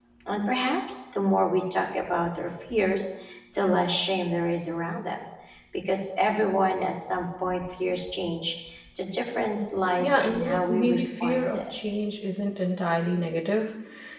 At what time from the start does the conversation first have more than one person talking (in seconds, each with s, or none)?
10.0 s